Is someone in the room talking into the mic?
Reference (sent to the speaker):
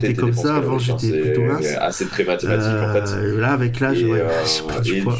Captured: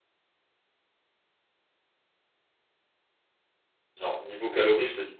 Yes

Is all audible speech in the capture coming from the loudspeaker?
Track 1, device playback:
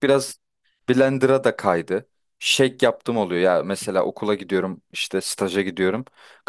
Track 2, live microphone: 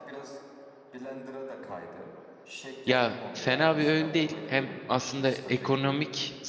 No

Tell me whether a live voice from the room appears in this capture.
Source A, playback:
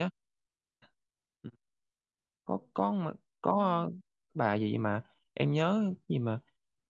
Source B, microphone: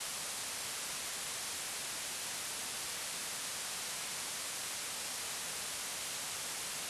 No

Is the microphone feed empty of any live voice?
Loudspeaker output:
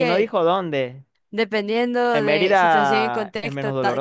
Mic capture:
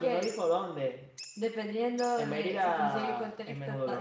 Yes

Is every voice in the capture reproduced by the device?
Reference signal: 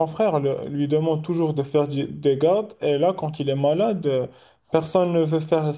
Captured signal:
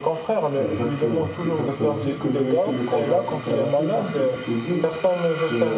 No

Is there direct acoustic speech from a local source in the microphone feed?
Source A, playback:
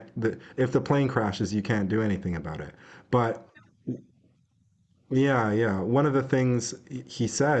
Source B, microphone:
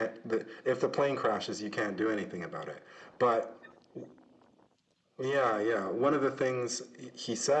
No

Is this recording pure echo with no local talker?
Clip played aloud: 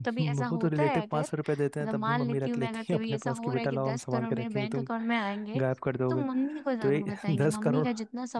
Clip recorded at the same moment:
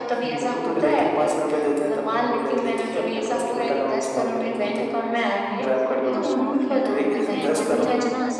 No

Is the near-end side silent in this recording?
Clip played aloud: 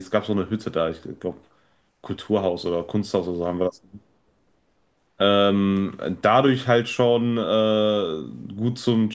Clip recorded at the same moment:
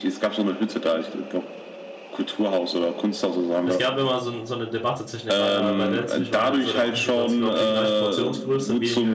No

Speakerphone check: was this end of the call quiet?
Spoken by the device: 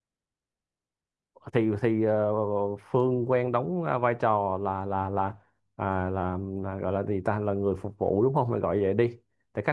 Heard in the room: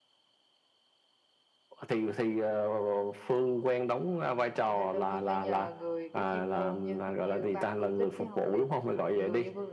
No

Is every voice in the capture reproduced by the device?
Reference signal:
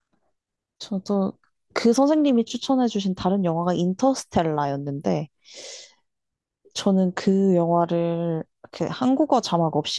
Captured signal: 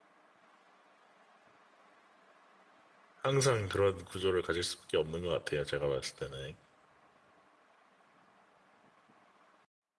No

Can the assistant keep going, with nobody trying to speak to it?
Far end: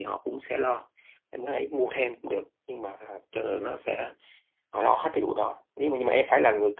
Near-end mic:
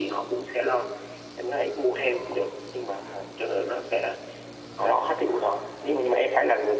Yes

